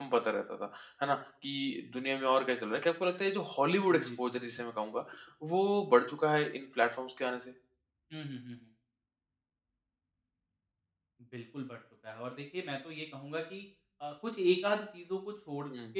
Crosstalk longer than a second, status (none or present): none